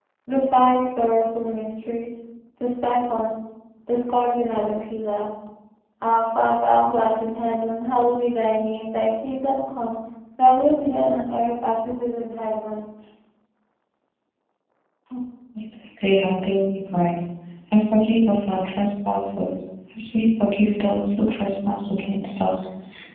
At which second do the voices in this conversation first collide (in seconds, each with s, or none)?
none